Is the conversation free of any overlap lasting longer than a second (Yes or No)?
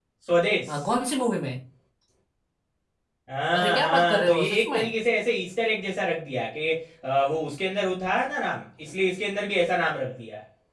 No